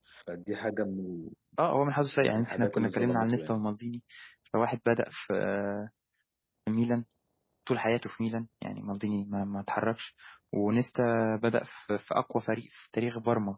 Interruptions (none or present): present